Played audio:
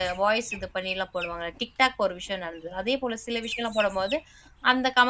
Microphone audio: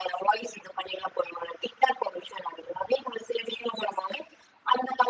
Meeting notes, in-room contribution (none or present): none